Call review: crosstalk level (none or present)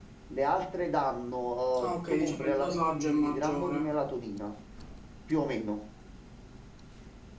present